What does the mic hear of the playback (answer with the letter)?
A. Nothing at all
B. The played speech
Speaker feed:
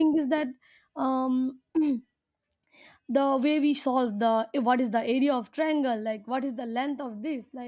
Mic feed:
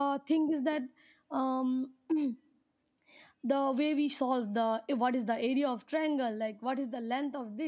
B